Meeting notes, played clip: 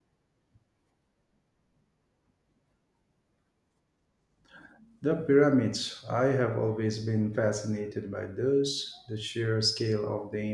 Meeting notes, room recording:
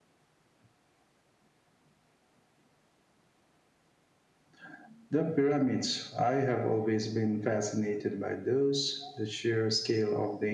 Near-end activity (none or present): none